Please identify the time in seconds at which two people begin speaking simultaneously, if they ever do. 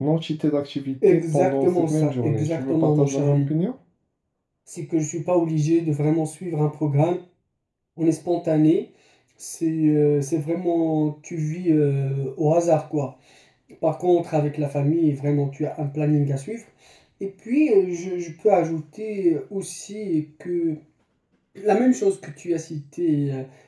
1.1 s

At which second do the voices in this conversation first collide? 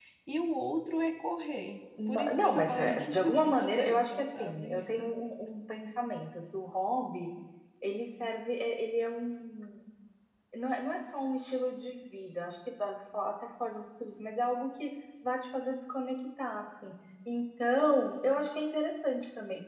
2.0 s

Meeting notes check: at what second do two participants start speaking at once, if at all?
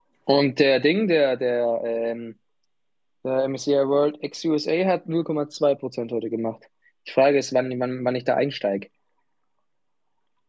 none

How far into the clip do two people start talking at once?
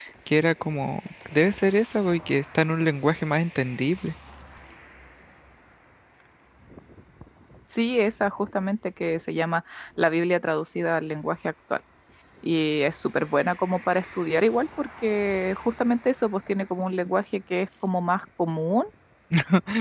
none

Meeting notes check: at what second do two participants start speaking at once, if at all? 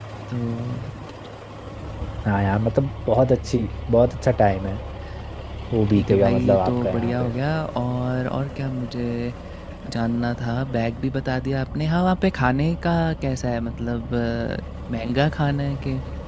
5.9 s

